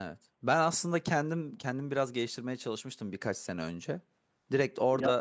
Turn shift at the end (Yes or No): No